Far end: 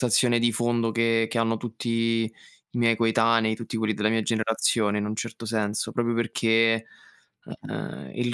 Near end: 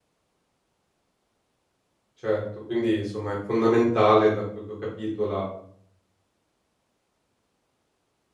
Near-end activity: present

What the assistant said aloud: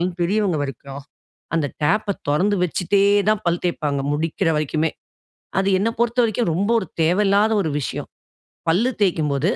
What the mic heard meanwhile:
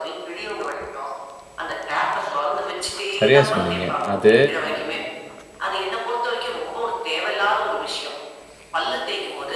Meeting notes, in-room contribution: present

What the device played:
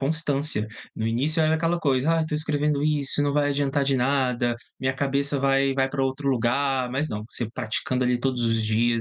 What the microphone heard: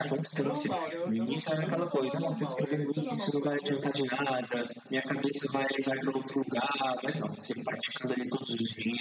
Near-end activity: present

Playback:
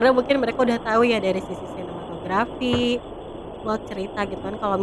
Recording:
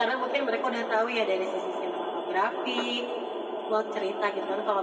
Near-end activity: none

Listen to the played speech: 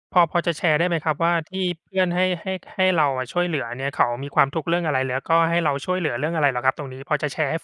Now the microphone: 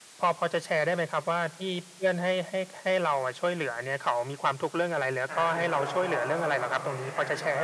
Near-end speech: present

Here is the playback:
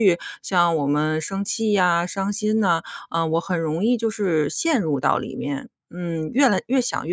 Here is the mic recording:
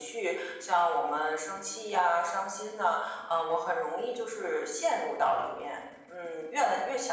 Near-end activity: none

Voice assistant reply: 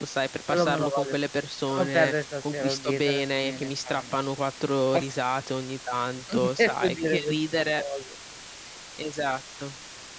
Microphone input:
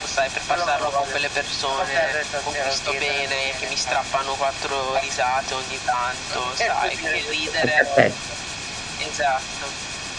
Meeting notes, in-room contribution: present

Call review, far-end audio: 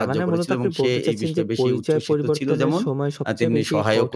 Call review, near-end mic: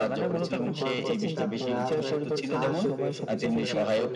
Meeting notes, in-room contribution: present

